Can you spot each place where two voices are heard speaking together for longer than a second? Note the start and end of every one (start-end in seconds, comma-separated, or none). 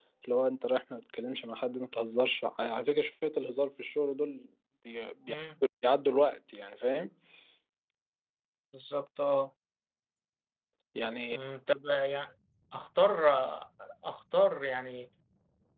none